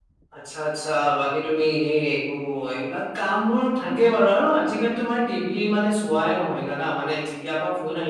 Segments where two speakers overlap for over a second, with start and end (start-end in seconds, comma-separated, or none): none